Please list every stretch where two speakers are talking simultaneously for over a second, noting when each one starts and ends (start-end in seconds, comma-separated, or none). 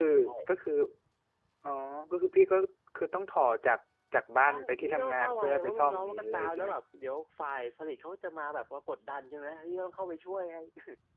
4.5-6.7